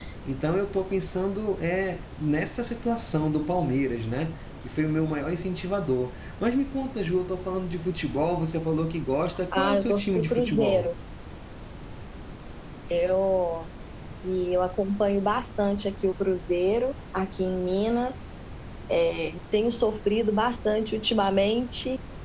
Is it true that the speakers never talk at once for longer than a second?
No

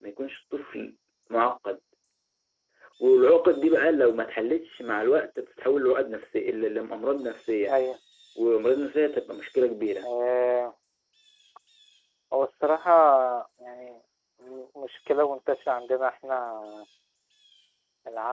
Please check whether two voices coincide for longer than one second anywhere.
No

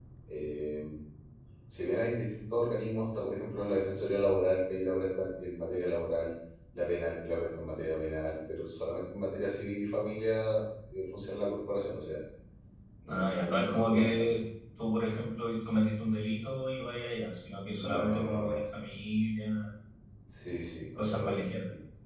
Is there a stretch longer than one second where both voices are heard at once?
Yes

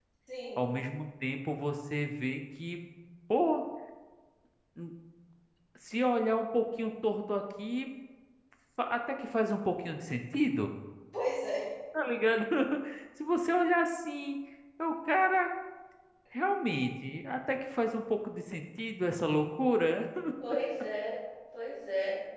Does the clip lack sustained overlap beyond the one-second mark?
Yes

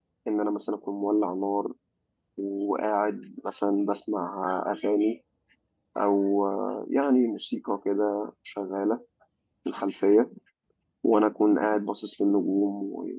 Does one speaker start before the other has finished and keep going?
No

